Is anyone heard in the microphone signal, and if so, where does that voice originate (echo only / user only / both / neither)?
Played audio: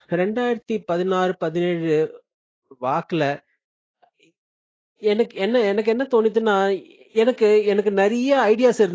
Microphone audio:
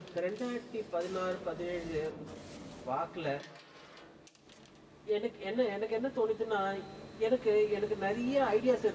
echo only